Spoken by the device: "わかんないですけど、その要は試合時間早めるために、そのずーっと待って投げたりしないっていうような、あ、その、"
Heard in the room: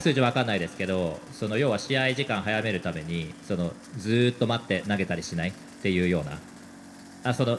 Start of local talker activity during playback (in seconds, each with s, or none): none